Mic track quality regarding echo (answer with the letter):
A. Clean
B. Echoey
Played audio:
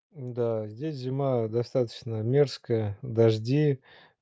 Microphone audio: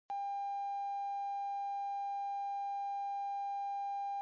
A